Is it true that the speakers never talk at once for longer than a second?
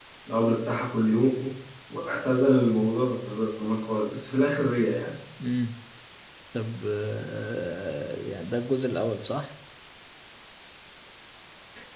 Yes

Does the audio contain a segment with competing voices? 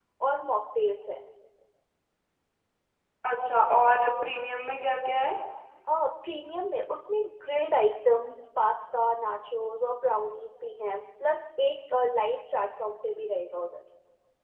No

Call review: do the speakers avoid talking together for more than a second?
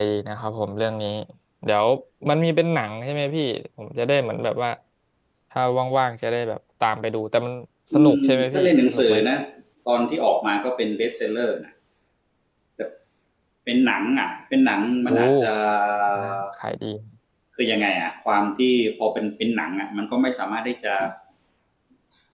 No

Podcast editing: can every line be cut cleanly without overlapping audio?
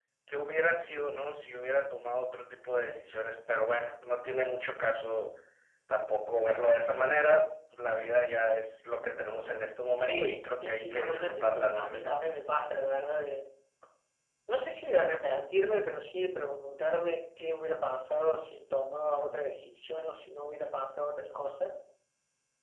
No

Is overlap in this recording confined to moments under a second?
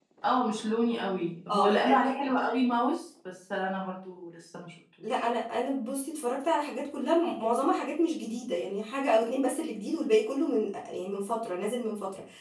Yes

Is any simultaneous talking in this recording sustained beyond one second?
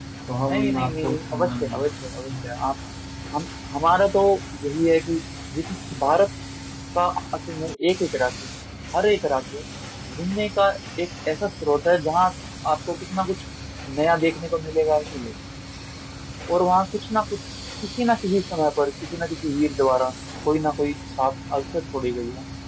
Yes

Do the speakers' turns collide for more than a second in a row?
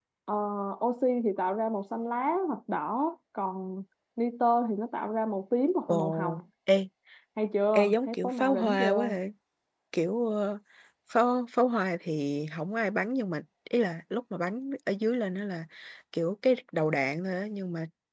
Yes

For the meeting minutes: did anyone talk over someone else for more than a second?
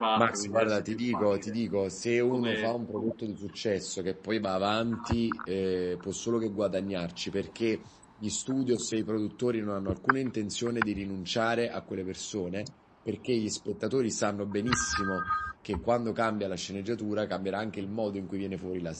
Yes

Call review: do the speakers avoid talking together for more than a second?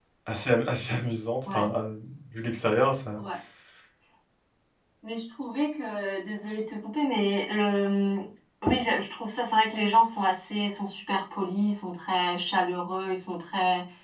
Yes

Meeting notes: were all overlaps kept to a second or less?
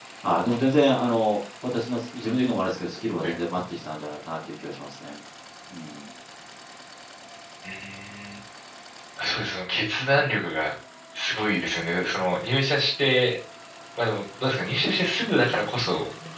Yes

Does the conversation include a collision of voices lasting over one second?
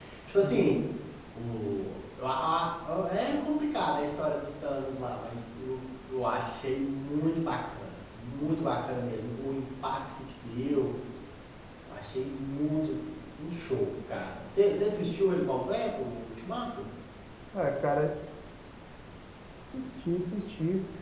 No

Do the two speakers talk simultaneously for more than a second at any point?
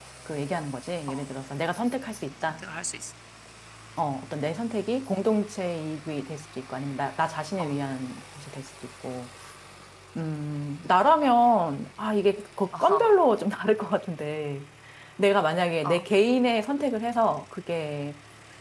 No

